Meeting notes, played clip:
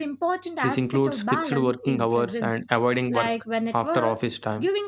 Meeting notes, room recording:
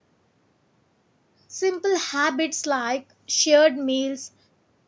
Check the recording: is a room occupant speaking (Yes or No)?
Yes